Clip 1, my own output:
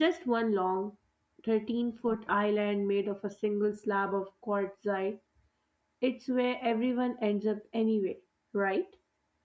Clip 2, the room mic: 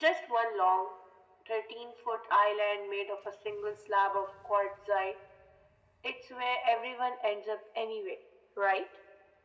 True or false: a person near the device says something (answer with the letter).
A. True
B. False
B